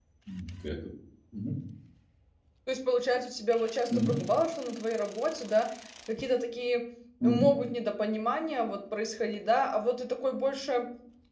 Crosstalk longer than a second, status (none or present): none